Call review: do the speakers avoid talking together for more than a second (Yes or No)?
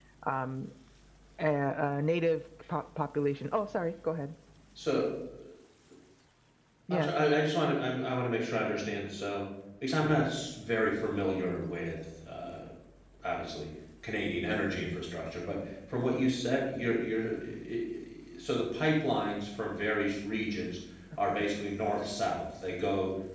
Yes